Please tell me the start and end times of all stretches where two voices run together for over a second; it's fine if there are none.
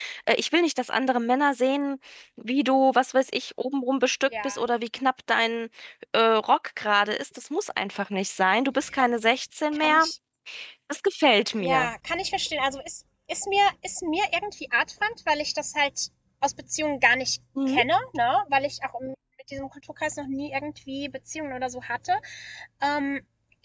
none

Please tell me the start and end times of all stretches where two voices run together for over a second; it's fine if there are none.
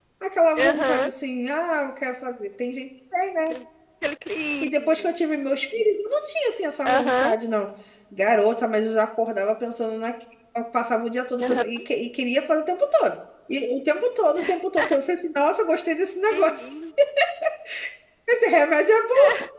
none

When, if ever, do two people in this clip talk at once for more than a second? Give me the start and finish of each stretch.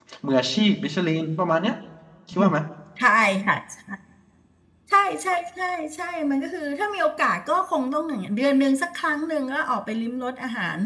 none

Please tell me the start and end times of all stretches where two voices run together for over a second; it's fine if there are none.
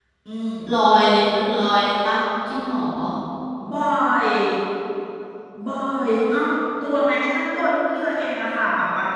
none

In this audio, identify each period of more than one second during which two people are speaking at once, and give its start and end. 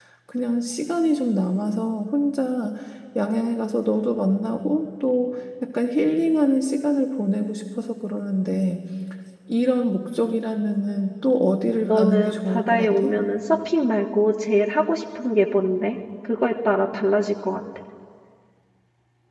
11.8-13.1

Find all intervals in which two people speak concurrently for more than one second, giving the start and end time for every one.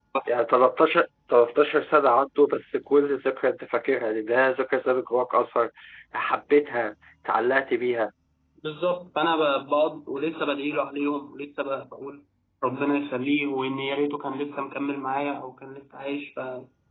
none

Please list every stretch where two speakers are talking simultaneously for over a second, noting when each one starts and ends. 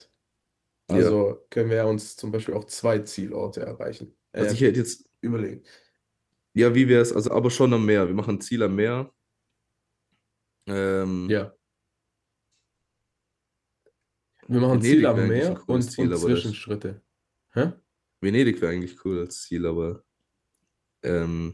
14.7-16.5

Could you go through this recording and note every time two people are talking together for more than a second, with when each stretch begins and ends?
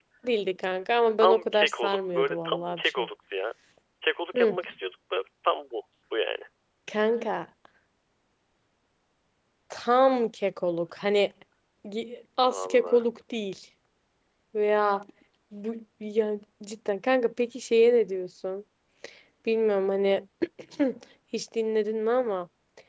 1.2-3.0

